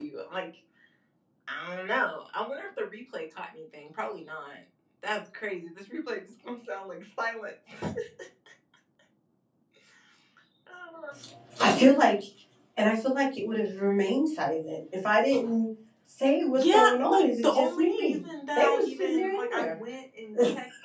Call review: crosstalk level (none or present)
present